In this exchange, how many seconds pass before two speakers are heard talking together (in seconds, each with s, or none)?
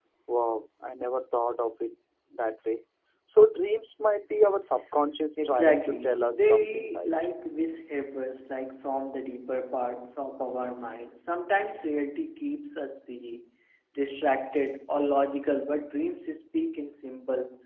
5.4 s